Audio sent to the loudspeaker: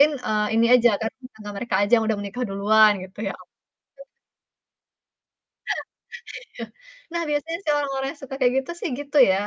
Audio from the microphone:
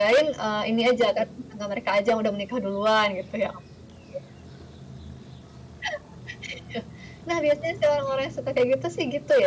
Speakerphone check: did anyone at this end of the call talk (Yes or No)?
No